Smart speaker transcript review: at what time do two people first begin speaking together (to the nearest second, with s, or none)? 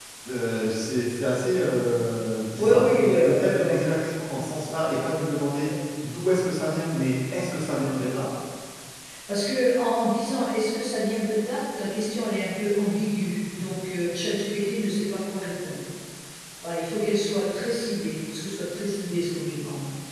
3 s